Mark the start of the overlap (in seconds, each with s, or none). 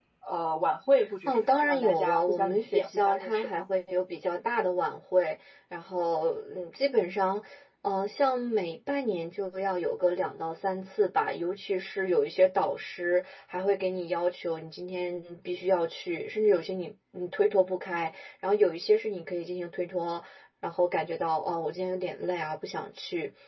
1.2 s